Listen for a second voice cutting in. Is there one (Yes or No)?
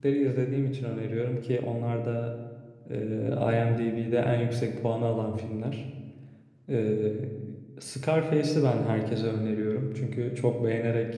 No